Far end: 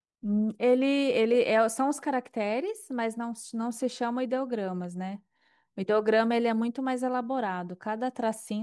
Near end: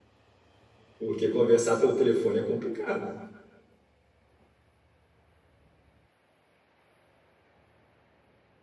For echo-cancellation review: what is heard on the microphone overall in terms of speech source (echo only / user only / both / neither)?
user only